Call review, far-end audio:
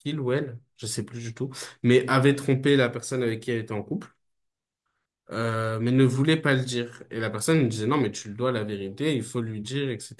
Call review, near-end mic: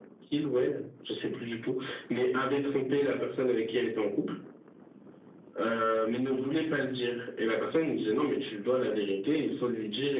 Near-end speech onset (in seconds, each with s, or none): none